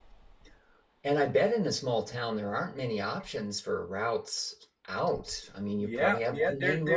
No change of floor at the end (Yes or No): No